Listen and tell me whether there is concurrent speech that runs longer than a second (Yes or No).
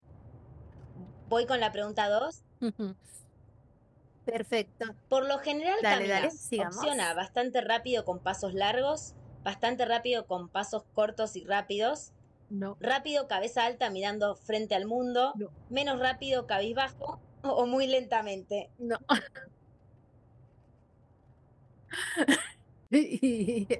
Yes